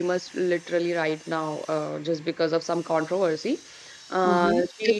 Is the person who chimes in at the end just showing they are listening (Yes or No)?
No